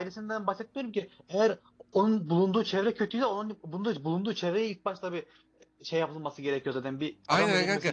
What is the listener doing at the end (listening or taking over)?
taking over